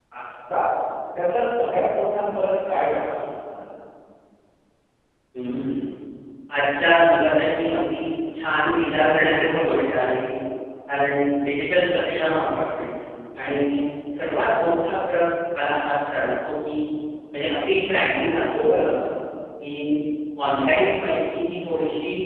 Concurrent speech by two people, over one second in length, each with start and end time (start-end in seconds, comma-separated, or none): none